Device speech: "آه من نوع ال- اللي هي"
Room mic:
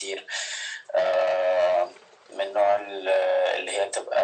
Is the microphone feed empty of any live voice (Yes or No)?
Yes